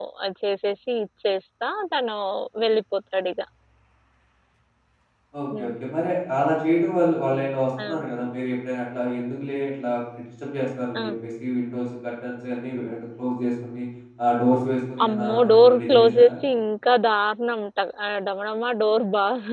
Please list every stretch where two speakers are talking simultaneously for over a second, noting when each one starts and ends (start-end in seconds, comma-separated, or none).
15.0-16.3